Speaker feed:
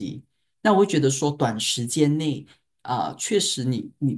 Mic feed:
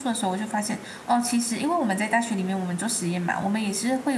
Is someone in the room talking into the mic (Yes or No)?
Yes